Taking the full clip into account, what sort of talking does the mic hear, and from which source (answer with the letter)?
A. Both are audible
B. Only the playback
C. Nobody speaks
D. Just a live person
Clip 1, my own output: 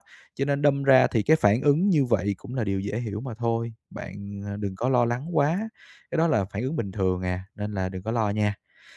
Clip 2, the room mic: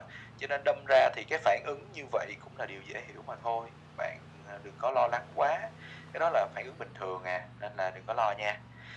B